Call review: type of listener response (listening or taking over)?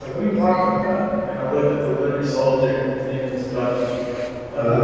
listening